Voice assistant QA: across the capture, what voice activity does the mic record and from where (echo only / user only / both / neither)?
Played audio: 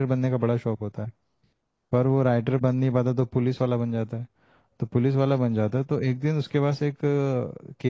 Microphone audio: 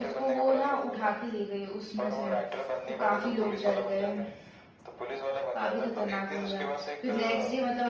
both